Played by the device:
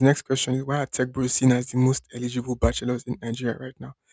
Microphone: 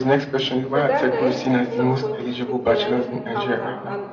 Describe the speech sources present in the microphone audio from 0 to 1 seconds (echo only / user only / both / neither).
both